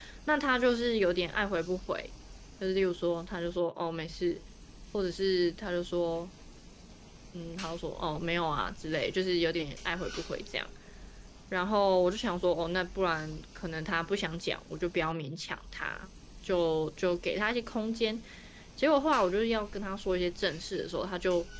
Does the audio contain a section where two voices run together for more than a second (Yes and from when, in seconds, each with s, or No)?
No